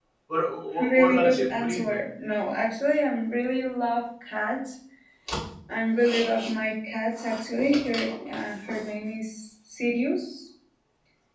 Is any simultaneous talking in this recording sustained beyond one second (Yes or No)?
Yes